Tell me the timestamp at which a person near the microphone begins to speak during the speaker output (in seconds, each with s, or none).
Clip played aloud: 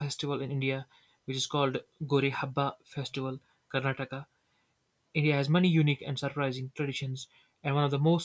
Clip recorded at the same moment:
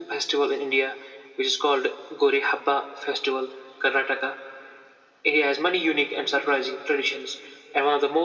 none